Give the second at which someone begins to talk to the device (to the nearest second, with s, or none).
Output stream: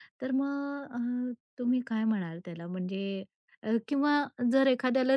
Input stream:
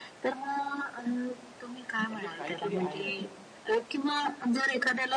2 s